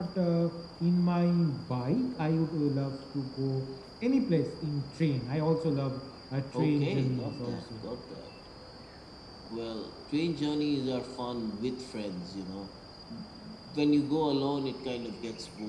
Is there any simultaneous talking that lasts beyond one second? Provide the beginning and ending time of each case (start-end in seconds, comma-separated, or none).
6.5-7.8